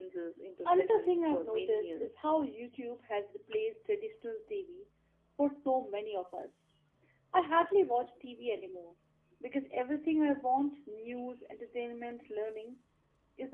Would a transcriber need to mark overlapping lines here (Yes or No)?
Yes